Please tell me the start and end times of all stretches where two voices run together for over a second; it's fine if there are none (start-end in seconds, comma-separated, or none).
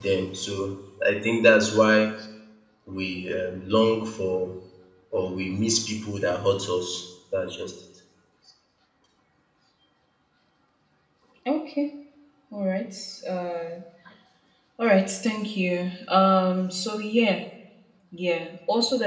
none